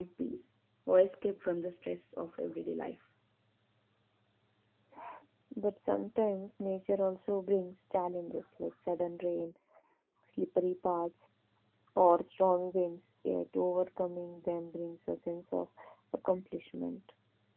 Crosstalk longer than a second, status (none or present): none